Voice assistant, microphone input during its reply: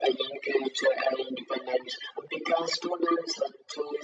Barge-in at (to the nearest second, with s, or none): none